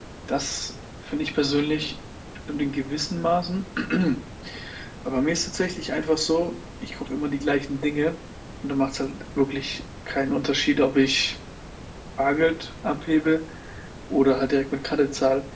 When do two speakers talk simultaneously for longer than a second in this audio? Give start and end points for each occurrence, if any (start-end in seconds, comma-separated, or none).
none